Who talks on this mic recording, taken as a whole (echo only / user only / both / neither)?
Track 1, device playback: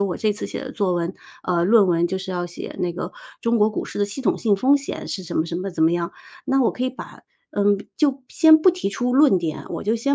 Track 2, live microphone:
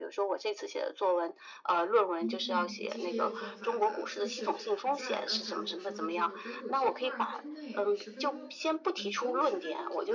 both